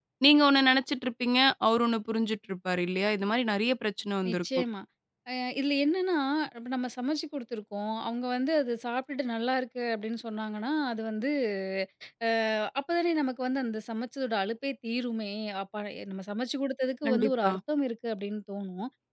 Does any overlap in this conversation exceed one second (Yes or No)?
No